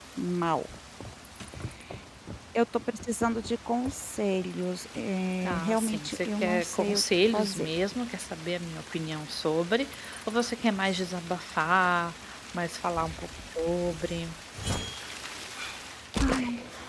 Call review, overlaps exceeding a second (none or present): present